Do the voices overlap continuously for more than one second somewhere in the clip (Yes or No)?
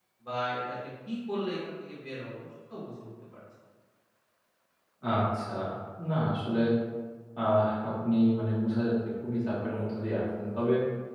No